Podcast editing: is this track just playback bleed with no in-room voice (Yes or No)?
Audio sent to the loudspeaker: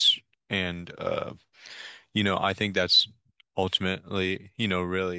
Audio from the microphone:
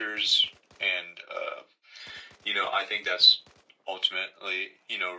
Yes